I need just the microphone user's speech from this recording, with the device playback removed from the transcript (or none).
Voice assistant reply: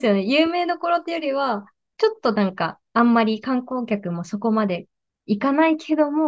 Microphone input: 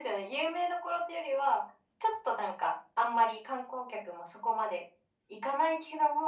none